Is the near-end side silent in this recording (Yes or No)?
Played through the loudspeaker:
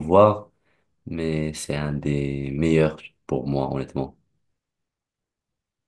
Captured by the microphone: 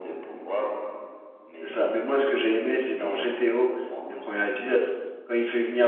No